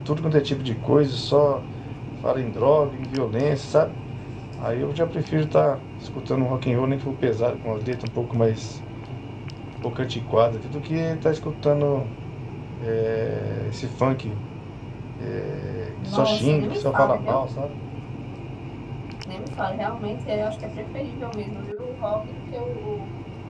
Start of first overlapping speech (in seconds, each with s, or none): 16.1 s